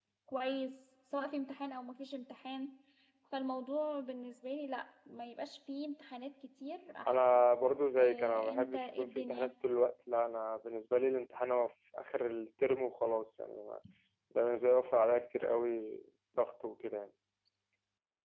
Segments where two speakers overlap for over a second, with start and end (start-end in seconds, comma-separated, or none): 8.0-9.5